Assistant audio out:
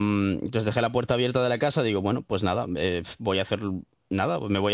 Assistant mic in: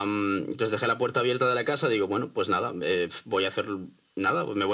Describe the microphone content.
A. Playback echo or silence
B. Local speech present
A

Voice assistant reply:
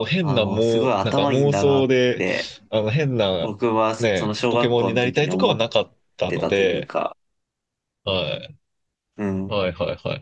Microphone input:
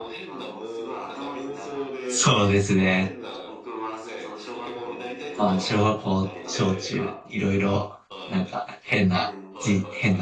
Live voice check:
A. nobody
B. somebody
B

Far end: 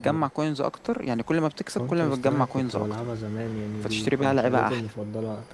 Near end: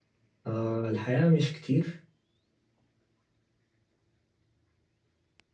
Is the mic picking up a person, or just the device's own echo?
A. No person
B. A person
B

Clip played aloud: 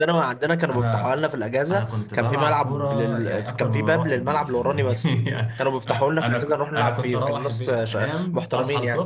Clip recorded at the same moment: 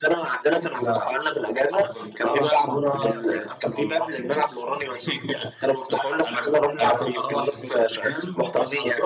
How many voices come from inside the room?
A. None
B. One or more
A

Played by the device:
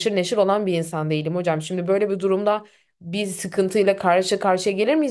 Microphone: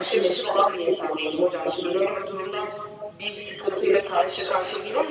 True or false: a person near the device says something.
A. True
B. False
B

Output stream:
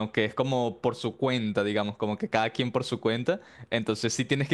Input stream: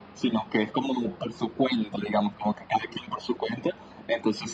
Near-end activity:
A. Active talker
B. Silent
B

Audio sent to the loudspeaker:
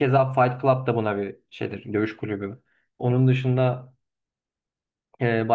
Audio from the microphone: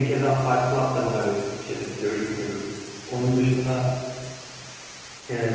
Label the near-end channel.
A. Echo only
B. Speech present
A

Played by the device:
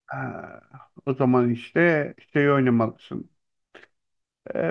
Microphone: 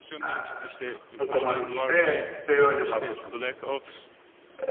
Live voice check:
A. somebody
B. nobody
A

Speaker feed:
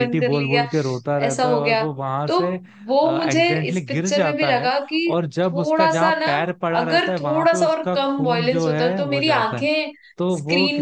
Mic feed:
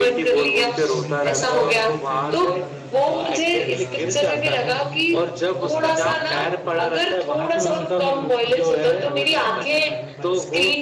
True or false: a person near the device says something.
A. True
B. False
A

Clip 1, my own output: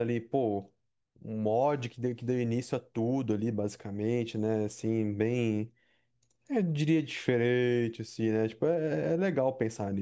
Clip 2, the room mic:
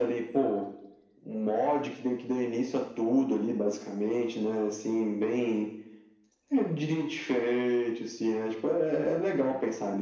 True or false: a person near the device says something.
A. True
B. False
B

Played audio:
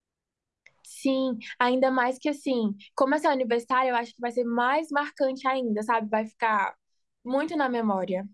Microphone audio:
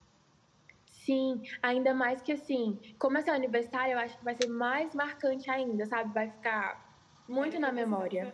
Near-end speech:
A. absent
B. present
B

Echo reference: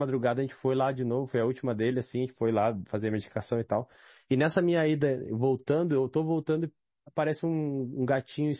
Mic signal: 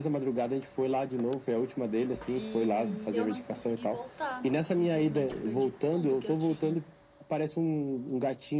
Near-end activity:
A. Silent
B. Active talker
B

